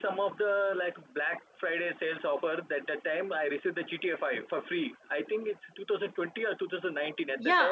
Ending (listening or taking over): taking over